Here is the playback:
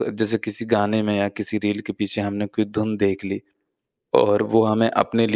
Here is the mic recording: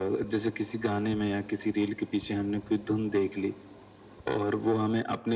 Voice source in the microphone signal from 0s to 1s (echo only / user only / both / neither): echo only